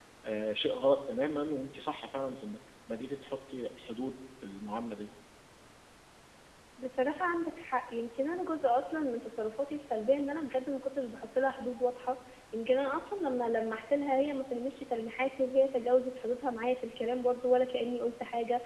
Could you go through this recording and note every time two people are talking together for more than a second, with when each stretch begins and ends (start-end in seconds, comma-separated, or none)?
none